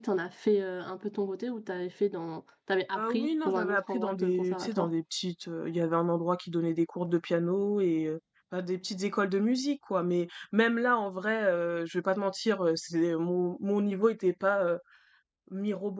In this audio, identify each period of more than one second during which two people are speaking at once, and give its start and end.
3.0-4.9

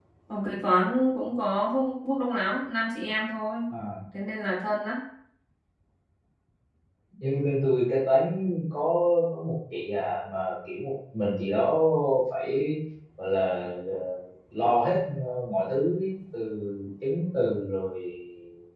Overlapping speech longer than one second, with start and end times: none

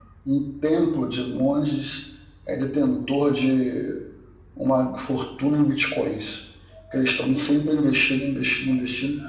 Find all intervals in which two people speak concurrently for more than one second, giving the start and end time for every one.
none

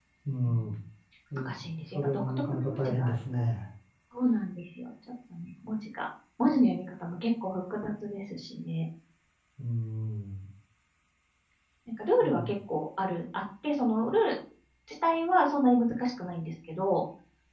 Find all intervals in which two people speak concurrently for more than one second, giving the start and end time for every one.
1.9-3.2

